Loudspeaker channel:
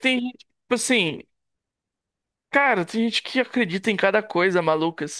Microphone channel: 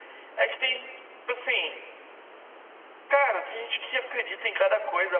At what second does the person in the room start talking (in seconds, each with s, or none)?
none